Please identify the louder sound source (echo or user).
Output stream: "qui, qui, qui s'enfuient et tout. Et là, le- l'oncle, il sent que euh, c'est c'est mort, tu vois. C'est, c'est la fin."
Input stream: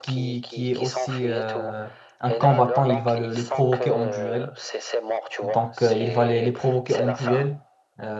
user